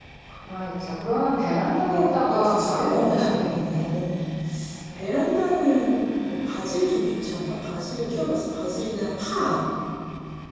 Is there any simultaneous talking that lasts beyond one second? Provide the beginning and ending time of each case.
1.9-3.9

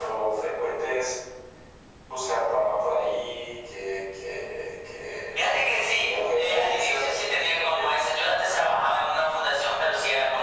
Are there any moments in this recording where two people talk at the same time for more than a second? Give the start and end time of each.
6.0-7.9

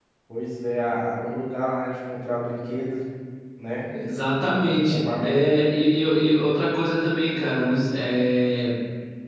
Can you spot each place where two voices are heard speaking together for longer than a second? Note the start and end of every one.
none

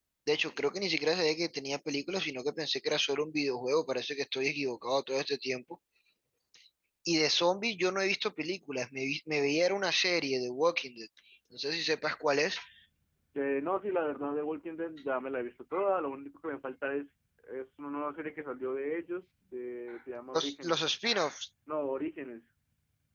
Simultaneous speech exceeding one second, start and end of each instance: none

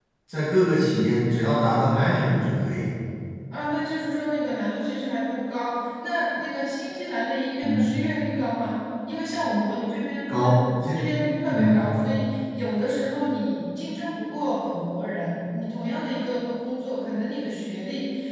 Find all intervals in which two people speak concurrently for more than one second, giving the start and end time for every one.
none

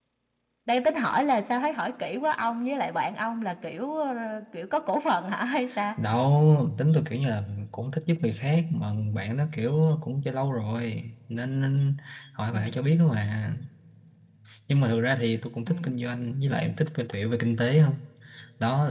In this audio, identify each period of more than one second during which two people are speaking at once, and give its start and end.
none

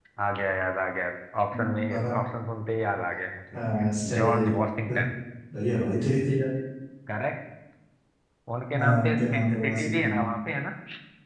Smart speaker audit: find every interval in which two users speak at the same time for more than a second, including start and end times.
8.8-10.0

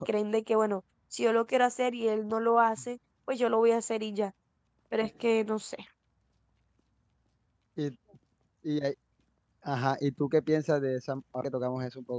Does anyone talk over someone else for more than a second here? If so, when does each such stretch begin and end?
none

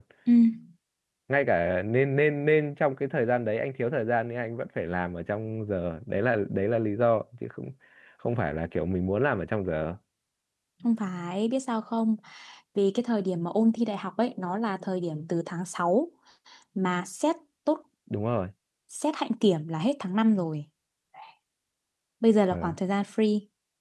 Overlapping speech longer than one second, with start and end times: none

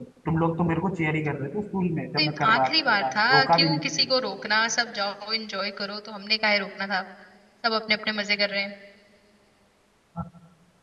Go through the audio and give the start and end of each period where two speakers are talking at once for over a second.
2.2-4.1

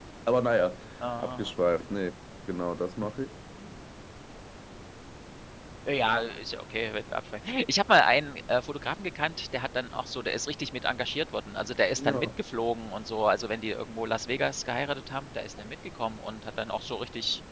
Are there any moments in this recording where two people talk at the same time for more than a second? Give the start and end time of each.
none

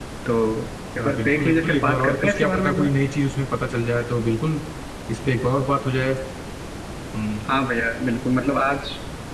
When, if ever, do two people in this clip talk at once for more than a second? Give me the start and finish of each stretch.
1.0-2.9

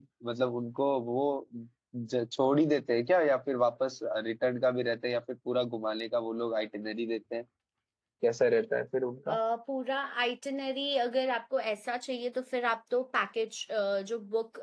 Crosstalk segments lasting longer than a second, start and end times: none

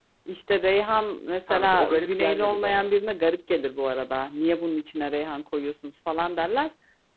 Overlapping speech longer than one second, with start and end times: 1.5-2.9

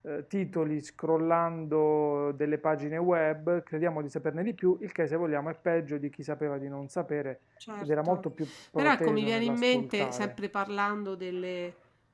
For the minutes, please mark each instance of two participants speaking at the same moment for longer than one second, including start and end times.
8.8-10.3

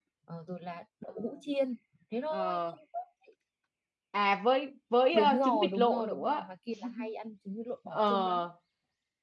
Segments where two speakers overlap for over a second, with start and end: 5.1-6.4

